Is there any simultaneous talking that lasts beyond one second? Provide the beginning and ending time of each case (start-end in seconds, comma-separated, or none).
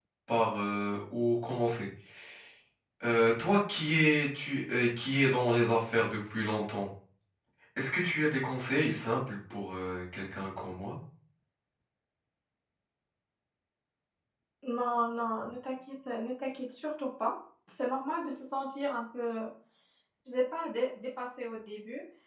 none